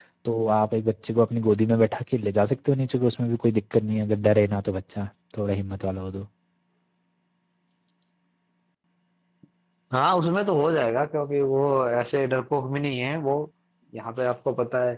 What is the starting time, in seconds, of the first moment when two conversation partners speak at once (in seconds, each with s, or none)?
none